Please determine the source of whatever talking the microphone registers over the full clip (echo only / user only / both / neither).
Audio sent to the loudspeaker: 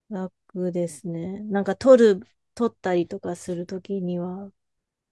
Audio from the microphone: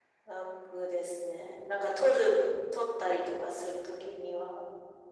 echo only